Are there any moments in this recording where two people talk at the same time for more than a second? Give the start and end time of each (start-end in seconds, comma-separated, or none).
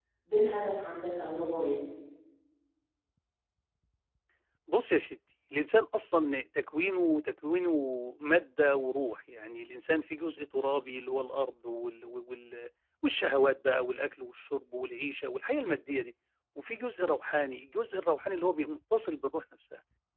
none